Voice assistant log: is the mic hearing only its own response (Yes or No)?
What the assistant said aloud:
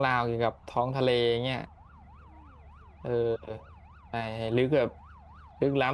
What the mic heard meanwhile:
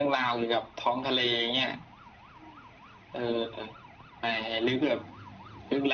Yes